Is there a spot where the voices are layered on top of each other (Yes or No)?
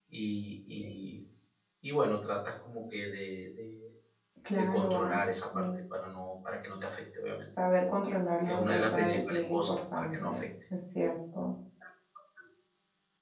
Yes